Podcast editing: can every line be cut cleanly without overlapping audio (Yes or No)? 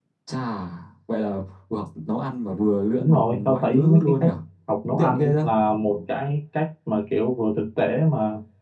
No